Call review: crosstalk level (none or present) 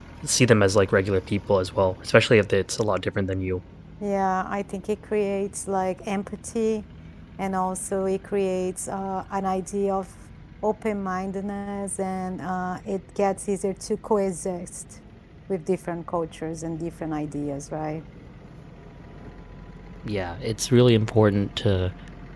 none